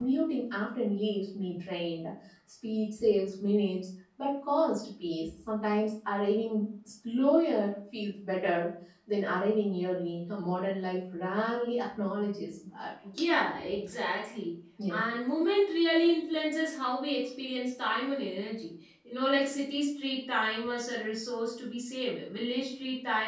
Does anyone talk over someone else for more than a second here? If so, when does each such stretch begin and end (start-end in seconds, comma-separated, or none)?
none